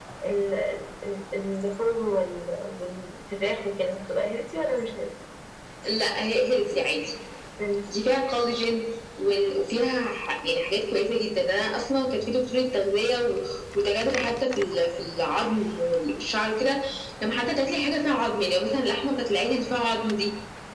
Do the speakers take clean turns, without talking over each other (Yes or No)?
Yes